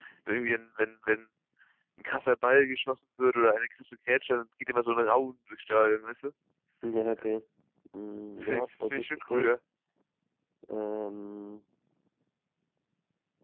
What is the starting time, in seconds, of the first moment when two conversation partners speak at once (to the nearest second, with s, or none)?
8 s